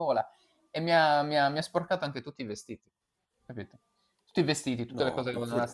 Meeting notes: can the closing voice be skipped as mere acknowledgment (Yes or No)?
Yes